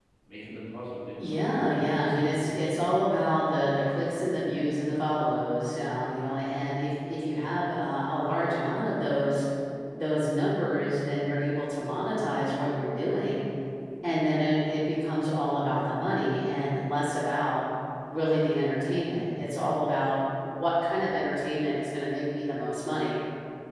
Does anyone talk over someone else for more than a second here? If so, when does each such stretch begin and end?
1.3-2.7

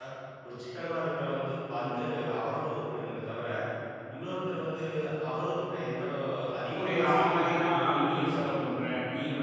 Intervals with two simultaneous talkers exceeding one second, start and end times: 6.8-8.5

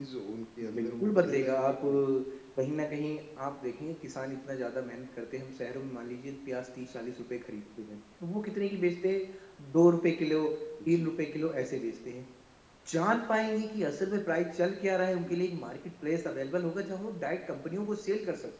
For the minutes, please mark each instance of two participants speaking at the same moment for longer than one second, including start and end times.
0.7-2.0

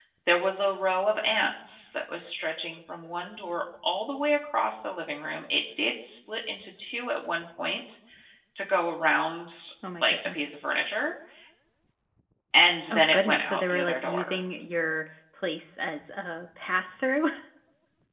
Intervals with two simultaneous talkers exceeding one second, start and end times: 12.9-14.4

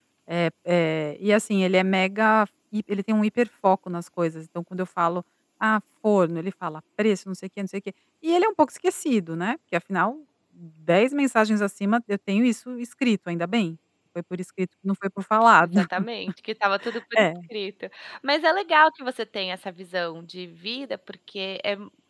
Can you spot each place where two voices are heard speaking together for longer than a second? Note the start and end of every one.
none

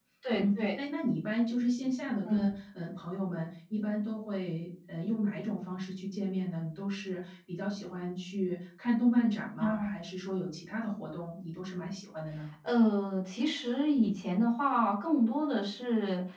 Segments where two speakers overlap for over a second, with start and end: none

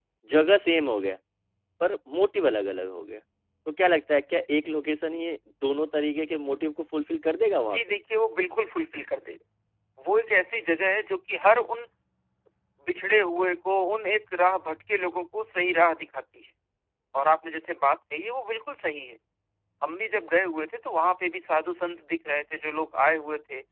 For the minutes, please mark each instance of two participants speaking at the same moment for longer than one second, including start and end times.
none

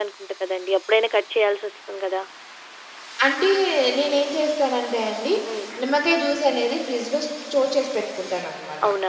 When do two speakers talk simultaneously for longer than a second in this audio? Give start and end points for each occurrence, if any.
none

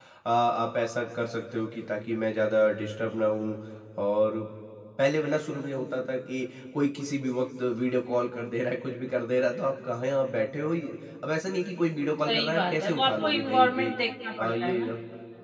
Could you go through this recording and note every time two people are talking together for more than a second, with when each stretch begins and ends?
12.2-13.9

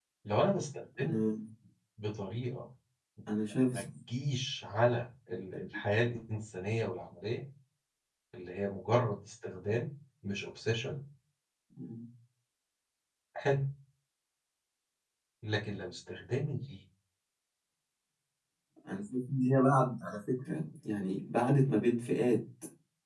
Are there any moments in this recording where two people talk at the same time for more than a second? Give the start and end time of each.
none

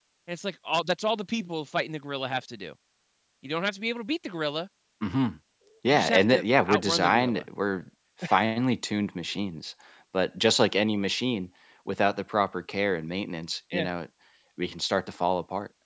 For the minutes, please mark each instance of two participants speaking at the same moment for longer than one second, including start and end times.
5.9-7.5

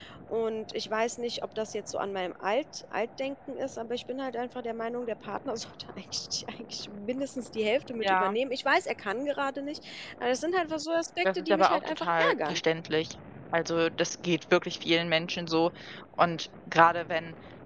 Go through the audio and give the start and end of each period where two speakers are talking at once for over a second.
11.2-12.6

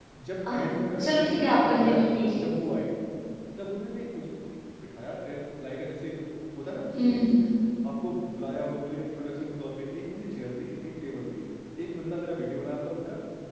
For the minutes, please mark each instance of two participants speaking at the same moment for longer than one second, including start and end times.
1.0-2.4

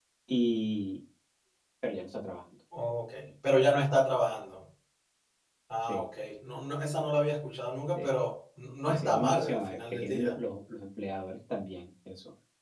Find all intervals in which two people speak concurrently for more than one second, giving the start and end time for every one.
8.9-10.4

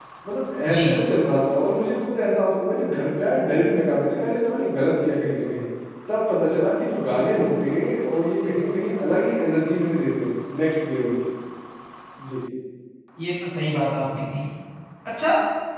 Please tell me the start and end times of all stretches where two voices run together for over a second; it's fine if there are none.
none

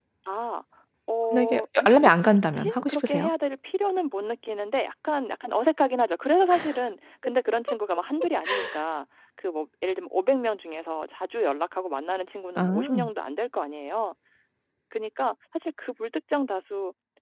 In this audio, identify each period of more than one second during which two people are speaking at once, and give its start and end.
1.3-3.3

